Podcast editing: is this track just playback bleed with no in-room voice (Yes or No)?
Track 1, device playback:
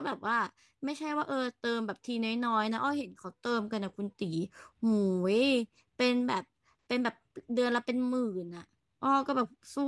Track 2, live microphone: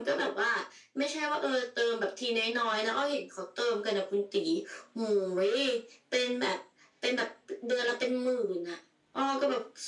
Yes